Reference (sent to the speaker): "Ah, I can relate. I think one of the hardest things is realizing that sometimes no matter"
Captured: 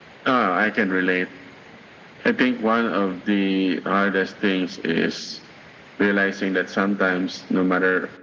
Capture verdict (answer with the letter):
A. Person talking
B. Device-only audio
B